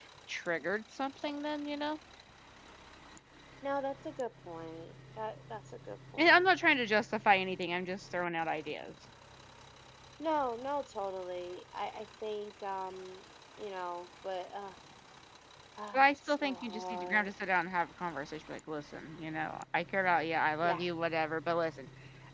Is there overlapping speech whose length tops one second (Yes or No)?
Yes